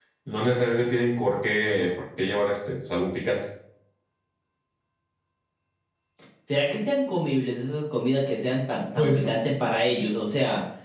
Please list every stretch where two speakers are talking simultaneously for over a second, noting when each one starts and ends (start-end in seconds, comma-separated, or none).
none